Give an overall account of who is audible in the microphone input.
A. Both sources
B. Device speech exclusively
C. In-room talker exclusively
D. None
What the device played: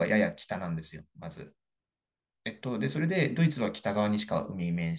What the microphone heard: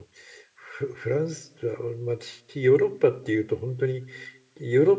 C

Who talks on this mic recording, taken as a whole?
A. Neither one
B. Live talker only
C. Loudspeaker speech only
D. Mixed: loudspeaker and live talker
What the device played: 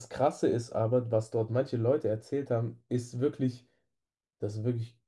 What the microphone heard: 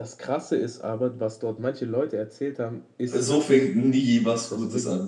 D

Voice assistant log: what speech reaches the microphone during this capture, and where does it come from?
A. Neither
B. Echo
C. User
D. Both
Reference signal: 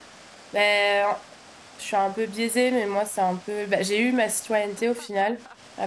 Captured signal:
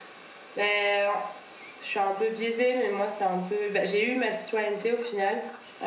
B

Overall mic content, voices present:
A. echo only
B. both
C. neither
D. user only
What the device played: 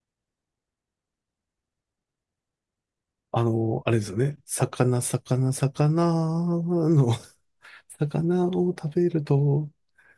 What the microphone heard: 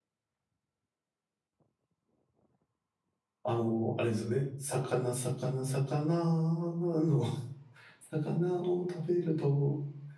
A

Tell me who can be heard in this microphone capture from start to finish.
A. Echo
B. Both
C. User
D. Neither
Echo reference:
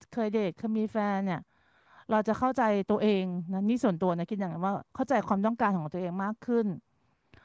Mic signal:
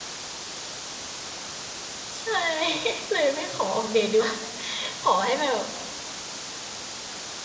C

